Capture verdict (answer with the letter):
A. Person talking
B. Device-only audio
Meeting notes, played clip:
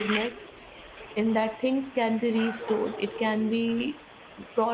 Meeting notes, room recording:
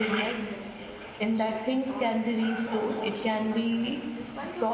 A